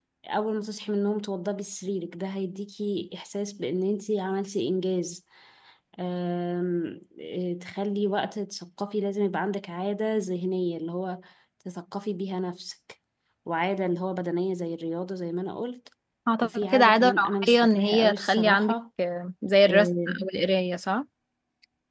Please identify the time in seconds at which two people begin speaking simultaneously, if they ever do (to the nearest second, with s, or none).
16 s